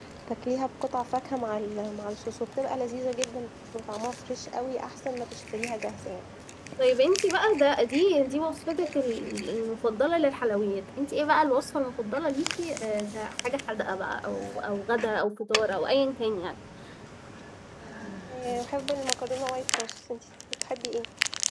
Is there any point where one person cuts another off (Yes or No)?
No